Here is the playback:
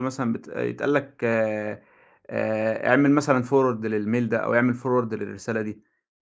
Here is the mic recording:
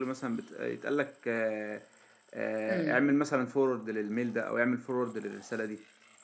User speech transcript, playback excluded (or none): إمم،